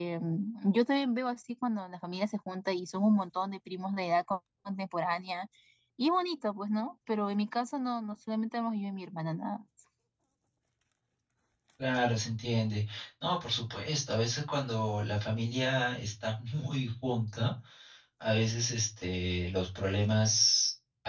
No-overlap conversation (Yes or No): Yes